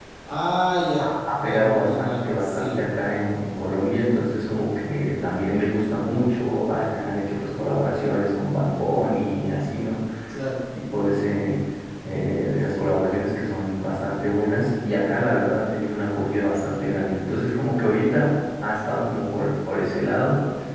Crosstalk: present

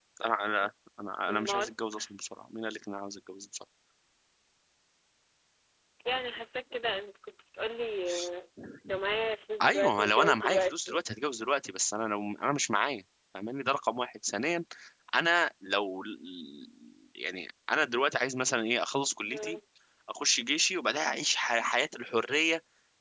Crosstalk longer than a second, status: present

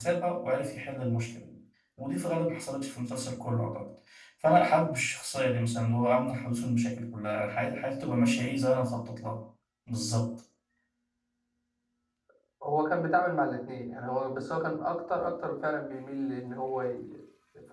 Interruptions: none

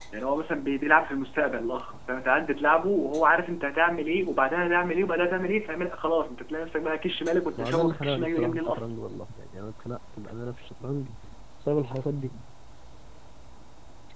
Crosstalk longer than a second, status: present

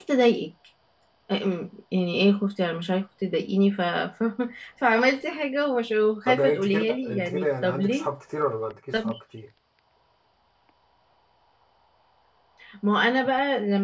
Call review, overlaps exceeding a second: present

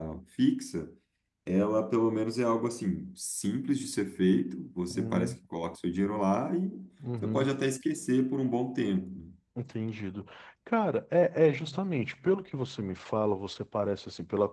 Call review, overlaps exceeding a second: none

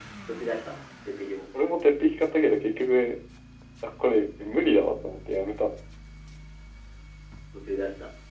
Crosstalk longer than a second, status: none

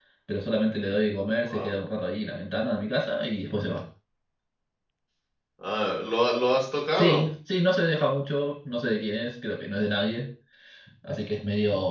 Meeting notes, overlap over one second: none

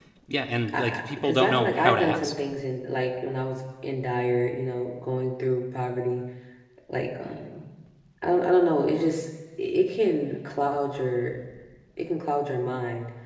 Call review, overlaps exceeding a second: present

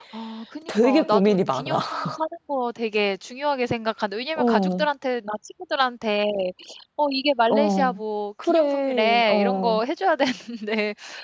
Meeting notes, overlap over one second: present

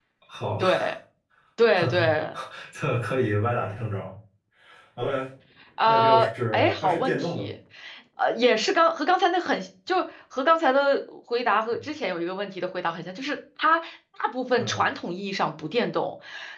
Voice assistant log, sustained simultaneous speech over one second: present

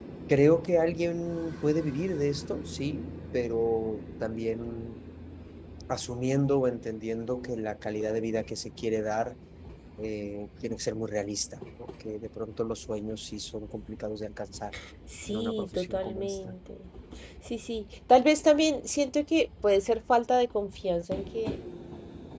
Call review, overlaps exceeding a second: present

